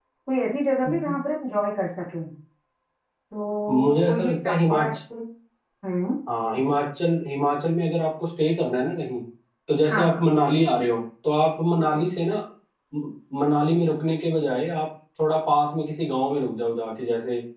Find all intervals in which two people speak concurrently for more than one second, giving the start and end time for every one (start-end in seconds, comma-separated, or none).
3.7-5.0